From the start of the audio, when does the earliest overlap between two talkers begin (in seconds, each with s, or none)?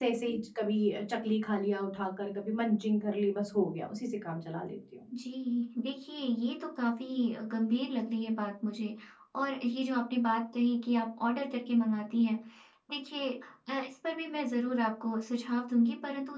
none